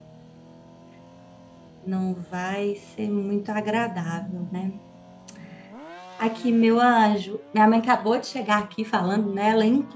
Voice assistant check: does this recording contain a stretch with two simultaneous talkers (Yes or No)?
No